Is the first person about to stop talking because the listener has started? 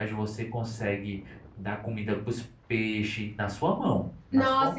Yes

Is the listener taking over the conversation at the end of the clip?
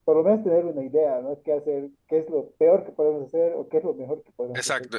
Yes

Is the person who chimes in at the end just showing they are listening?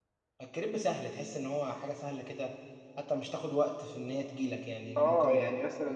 No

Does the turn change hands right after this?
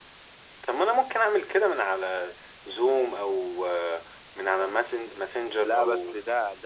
Yes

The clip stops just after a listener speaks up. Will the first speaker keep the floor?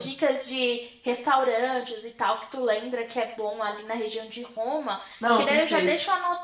Yes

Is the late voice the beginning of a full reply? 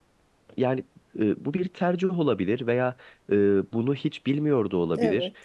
No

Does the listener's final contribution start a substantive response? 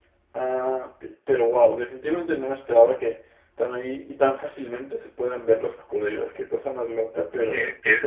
Yes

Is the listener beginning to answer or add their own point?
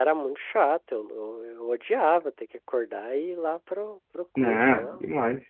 Yes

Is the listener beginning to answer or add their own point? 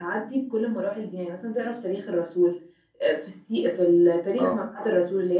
No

